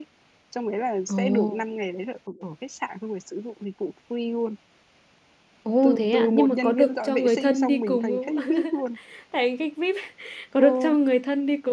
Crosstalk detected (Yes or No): Yes